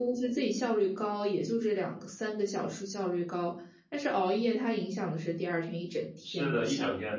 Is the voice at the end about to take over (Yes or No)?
Yes